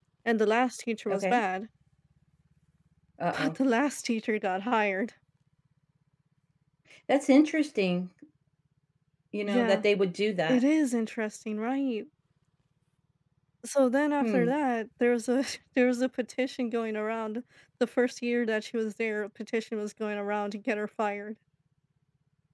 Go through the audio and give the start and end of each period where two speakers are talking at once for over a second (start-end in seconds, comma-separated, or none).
none